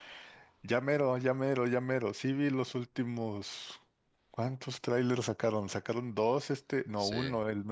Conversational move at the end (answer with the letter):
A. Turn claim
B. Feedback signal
B